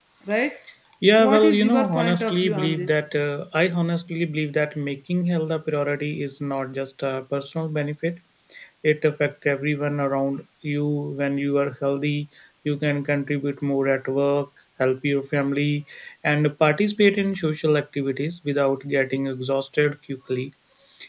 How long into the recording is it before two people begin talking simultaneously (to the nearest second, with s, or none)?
1 s